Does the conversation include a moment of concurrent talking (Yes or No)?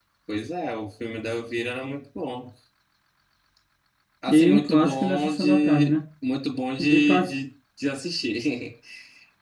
Yes